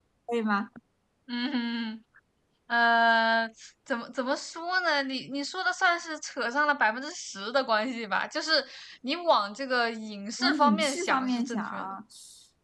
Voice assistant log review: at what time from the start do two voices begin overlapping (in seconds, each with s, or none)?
10.4 s